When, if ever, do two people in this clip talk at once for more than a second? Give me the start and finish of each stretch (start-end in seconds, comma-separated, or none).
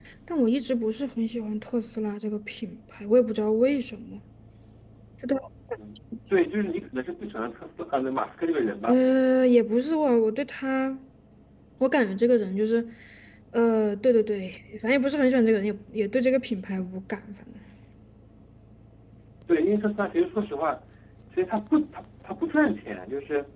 none